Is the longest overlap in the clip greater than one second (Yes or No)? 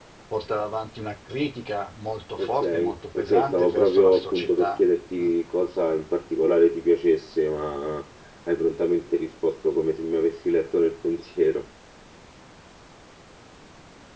Yes